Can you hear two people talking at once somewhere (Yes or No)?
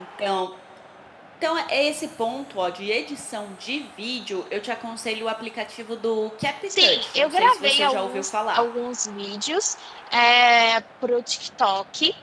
Yes